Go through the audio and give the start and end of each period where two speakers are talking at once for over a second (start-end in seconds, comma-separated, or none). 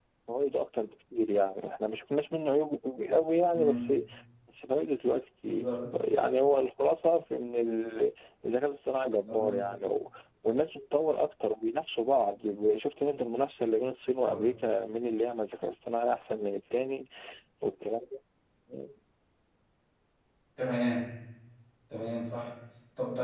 none